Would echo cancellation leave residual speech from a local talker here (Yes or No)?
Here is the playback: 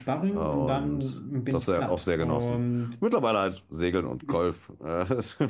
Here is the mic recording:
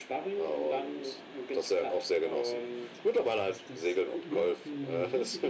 Yes